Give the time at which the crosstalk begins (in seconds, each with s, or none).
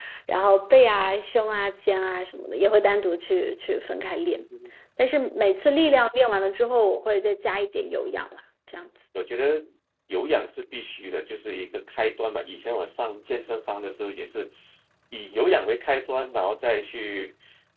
none